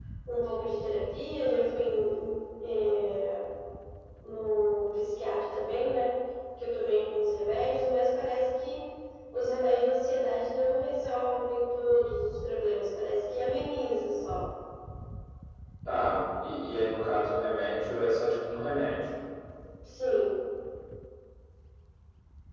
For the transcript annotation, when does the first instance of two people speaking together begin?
none

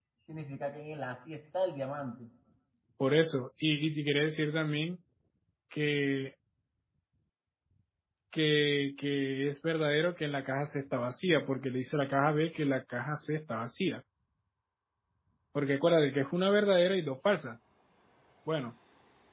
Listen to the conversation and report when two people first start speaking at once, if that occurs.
none

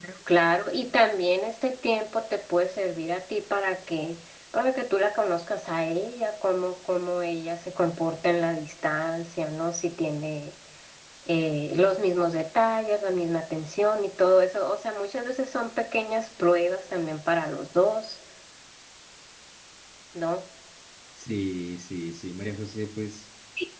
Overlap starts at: none

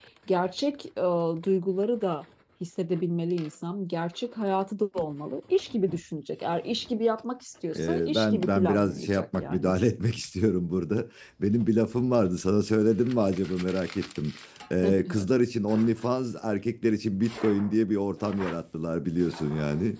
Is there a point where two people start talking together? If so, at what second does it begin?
7.8 s

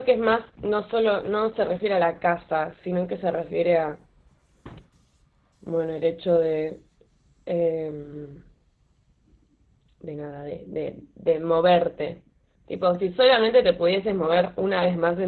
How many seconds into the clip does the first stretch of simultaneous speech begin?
none

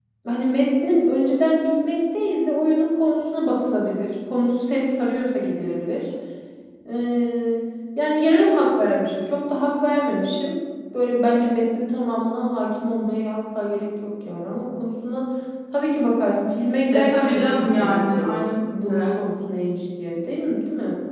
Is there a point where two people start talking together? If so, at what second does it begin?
16.9 s

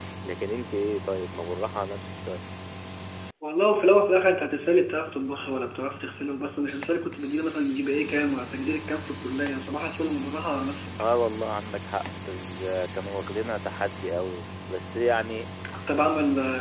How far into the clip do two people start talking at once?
none

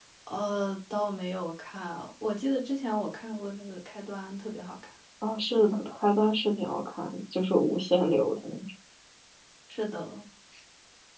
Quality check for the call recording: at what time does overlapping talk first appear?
none

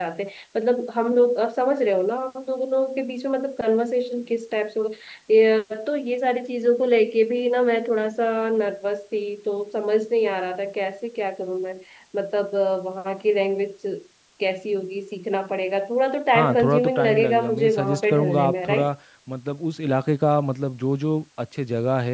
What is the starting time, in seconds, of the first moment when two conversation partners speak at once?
16.3 s

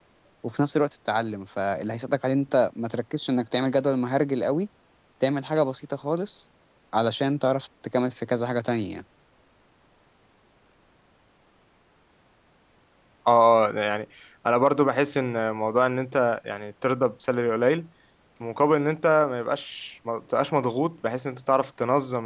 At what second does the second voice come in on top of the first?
none

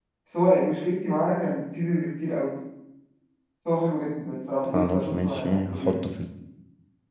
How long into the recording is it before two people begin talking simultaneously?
4.7 s

